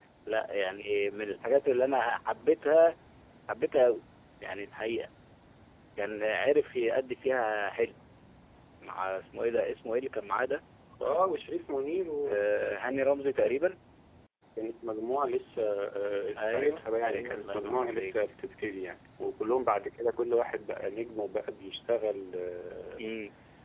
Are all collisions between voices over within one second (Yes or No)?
No